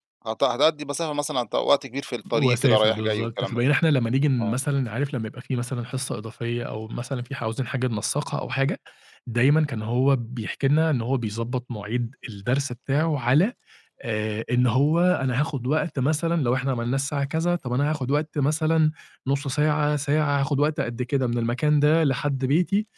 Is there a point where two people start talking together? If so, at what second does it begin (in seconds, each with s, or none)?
2.3 s